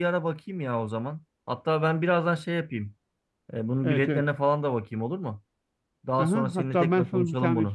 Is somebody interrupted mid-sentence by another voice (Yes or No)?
Yes